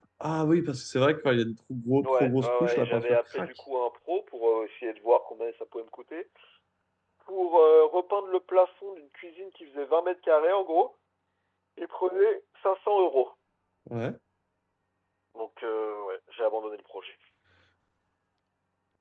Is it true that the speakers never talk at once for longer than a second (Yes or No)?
No